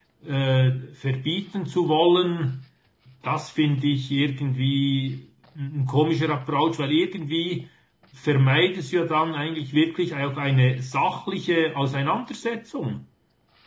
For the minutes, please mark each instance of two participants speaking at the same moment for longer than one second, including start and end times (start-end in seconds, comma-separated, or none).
none